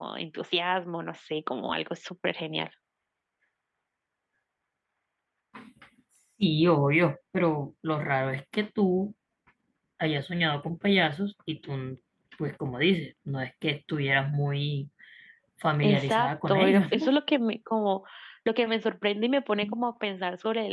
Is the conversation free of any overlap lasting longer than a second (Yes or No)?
No